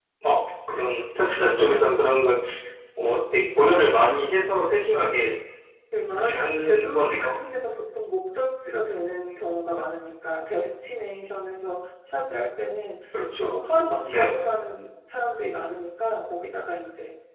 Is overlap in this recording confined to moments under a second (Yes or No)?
No